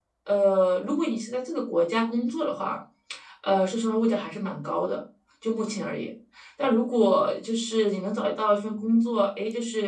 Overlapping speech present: No

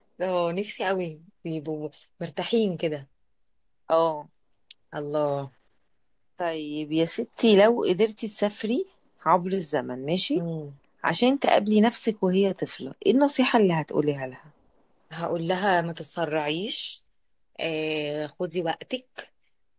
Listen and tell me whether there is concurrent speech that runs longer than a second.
No

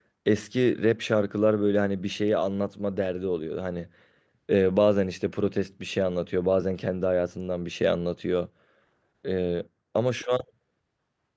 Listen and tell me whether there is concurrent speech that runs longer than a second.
No

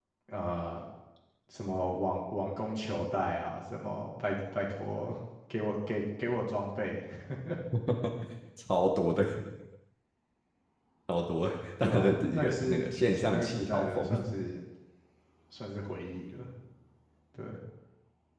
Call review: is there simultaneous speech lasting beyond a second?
Yes, from 11.8 s

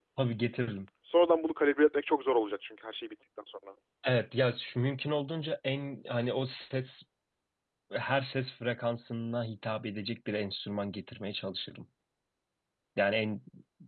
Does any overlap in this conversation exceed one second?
No

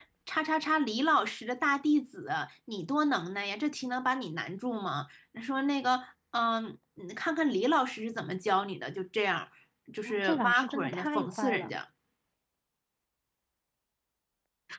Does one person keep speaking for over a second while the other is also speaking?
Yes, from 10.1 s

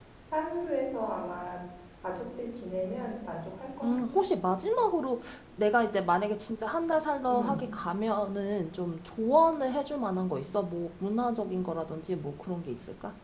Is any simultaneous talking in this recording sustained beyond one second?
No

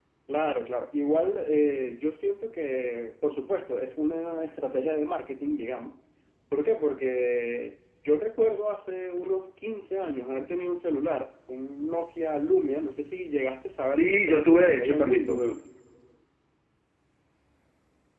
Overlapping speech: Yes, from 14.0 s

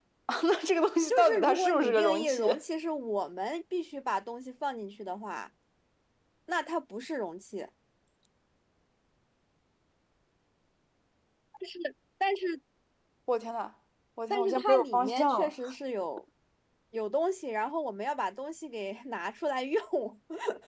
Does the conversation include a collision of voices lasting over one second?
Yes, from 1.1 s

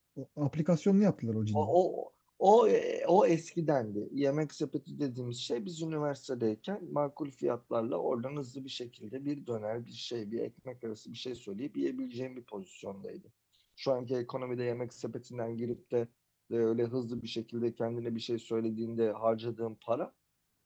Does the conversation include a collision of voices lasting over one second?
No

